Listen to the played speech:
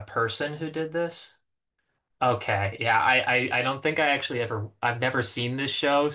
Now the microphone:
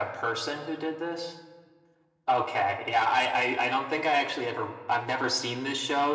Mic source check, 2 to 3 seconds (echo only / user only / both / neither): echo only